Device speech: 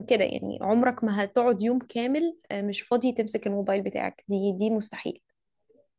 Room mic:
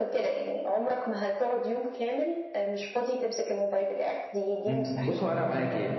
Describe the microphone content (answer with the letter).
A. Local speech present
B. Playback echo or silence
A